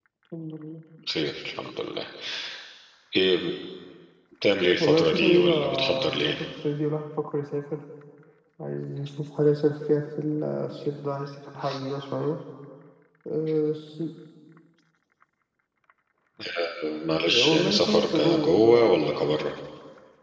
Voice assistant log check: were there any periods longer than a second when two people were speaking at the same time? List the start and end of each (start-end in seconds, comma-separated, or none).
4.8-6.3, 17.3-19.4